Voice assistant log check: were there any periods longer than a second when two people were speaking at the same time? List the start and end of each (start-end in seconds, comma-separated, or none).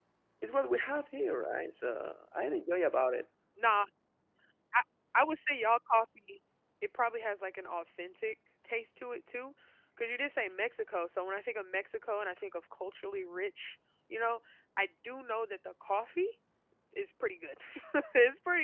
none